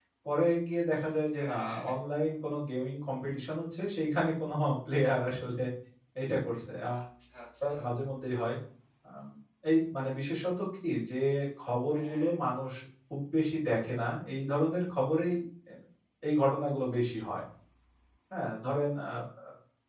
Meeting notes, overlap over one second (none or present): none